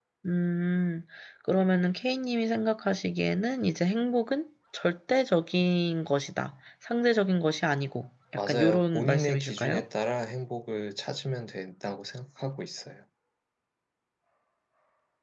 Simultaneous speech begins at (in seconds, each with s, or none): 8.4 s